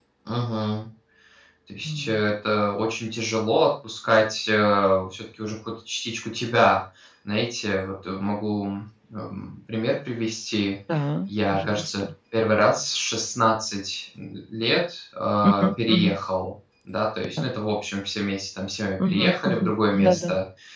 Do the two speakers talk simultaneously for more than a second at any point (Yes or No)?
Yes